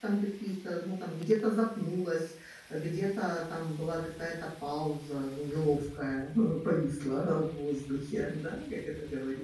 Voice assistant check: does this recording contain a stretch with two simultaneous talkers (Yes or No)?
No